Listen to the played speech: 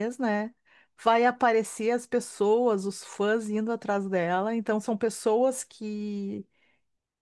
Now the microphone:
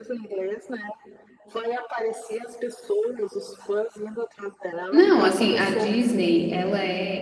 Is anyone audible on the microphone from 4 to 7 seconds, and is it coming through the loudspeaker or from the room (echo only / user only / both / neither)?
both